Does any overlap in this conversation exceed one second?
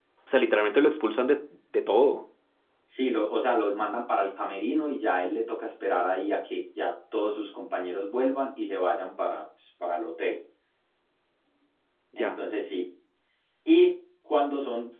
No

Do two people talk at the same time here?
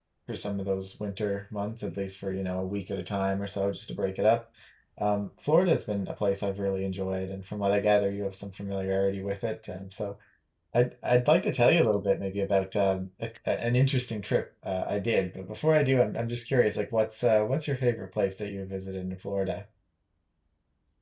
No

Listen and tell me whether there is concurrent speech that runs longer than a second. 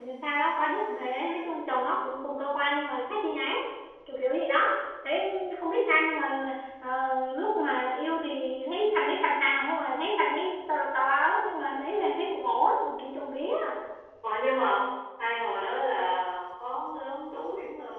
No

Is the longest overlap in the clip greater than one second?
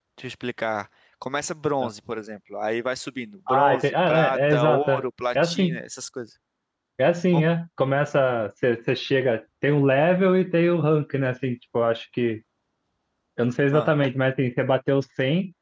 Yes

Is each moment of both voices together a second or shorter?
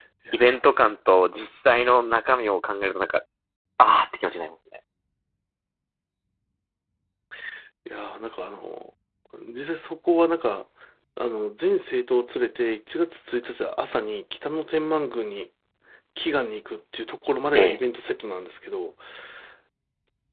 Yes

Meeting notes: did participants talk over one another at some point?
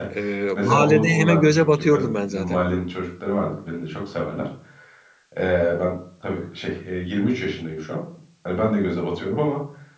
Yes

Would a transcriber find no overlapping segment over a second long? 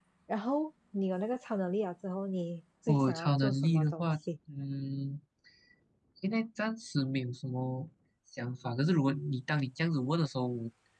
No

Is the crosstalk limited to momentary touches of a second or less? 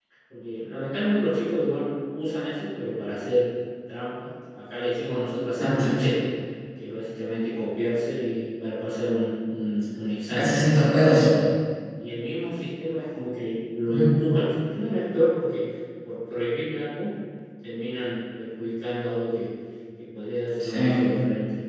Yes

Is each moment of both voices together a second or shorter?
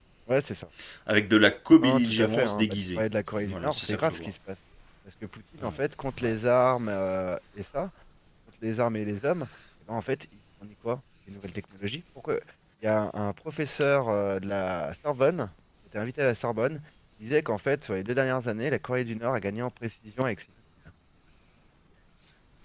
No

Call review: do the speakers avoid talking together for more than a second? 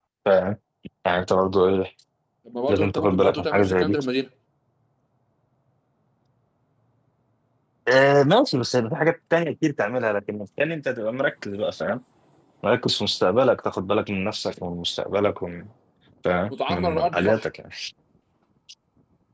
No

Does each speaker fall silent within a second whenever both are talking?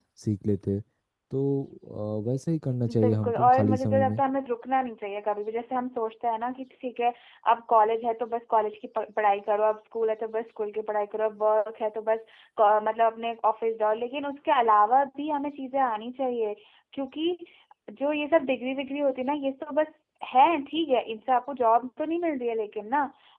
No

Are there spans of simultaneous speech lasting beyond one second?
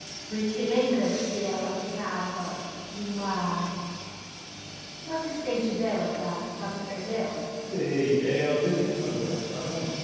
No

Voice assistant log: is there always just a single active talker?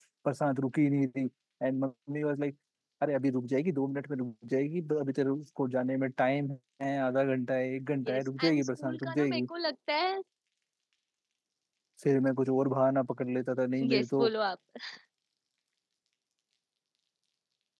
No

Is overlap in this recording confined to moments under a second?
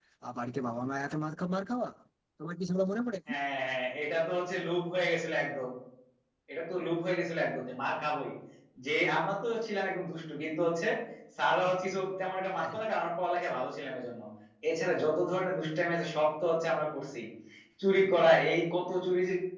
Yes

